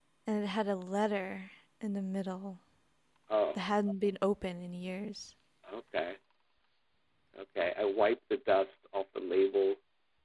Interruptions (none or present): none